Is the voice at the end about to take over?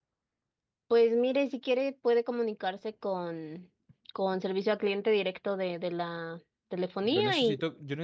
Yes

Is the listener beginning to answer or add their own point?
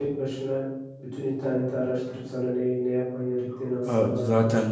Yes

